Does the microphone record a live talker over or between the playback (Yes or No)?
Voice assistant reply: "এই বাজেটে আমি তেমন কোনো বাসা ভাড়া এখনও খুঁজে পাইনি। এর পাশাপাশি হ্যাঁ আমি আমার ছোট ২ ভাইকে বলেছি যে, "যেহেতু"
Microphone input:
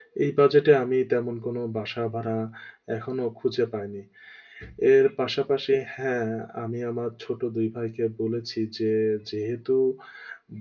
No